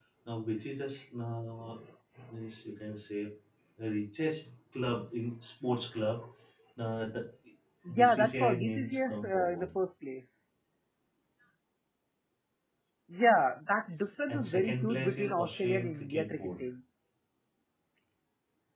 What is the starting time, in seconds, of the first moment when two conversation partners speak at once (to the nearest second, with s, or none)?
8 s